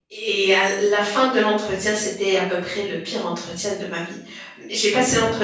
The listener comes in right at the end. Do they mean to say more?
No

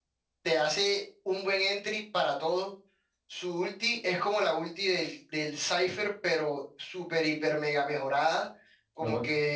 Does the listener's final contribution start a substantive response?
No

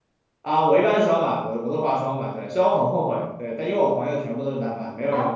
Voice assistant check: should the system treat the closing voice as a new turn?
No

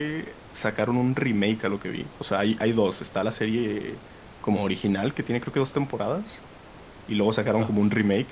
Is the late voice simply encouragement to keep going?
Yes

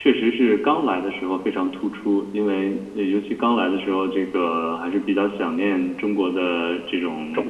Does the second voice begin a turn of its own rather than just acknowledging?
No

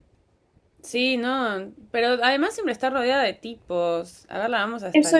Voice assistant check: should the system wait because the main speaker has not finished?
No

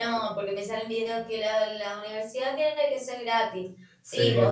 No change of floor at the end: Yes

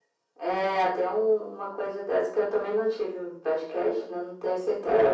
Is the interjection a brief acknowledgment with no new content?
No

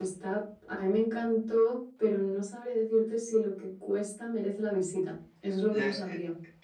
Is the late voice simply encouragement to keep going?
No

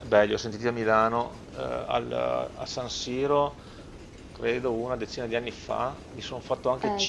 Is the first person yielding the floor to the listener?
No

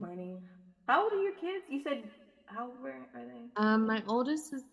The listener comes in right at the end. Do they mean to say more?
Yes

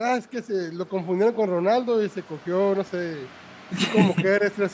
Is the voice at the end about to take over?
No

